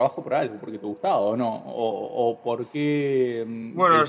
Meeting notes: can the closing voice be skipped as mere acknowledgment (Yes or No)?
No